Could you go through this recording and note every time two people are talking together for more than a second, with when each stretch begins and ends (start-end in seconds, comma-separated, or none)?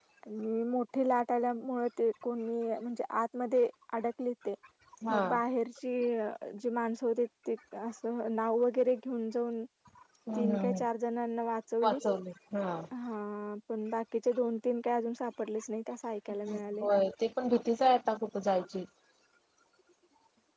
none